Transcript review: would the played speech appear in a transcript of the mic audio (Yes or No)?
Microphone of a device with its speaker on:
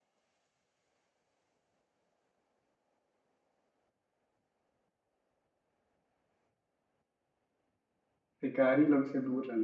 No